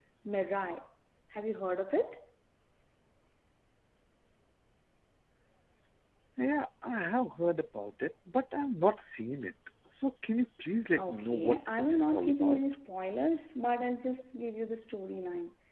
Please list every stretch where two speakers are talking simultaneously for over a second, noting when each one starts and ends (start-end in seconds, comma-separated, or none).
11.0-12.6